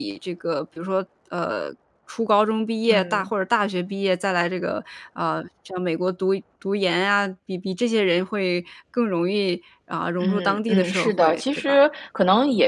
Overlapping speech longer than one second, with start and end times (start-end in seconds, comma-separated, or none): 10.2-11.8